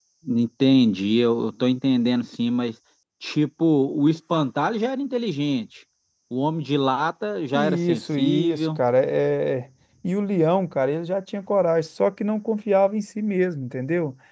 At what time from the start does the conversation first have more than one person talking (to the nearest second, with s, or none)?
8 s